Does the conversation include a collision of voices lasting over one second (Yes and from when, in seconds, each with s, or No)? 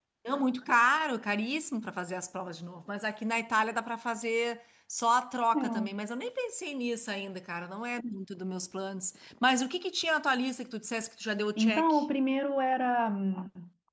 No